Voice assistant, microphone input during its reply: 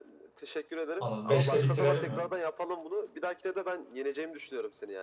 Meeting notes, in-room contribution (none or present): present